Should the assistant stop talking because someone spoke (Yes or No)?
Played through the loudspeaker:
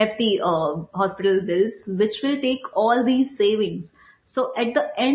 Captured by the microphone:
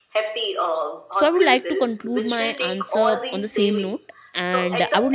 Yes